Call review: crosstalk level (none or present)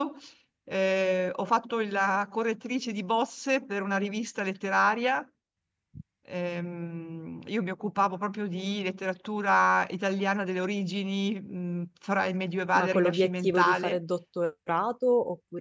present